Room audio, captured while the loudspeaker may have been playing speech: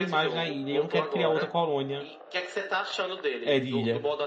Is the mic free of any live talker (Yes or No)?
No